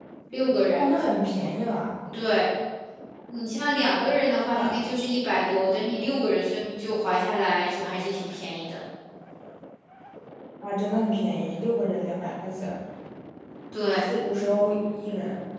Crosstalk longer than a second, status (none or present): none